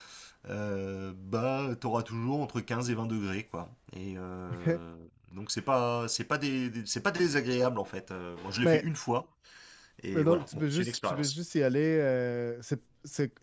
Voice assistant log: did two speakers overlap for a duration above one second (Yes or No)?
Yes